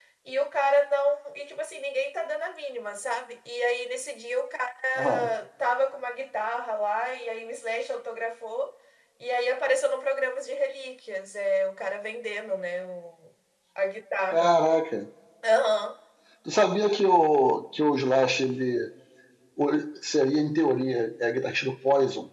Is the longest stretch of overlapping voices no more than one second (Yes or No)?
Yes